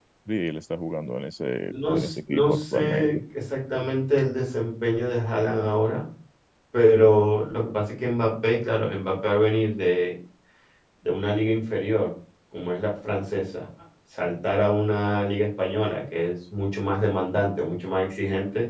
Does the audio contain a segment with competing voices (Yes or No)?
Yes